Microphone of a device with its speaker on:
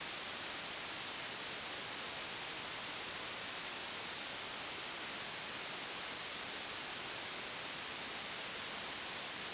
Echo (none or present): none